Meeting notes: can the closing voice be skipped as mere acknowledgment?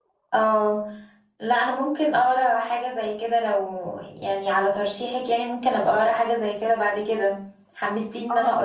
No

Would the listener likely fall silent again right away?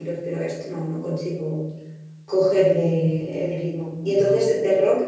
Yes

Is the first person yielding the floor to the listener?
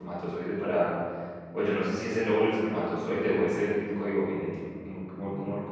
Yes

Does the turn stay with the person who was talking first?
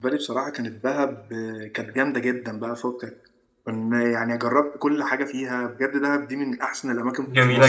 No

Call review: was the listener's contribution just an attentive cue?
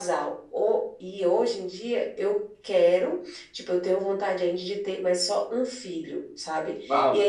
Yes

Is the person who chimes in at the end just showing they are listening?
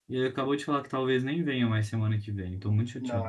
No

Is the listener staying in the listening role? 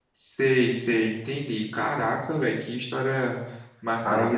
No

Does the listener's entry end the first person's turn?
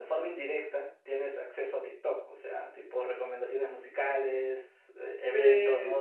No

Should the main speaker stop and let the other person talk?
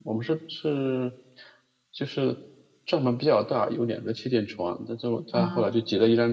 No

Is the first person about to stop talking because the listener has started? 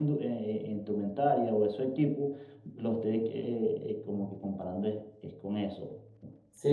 Yes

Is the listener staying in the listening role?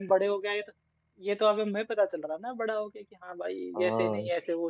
No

